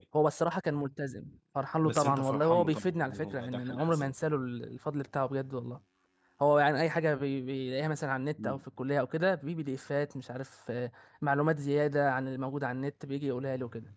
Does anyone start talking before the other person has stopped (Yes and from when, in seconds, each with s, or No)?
Yes, from 1.8 s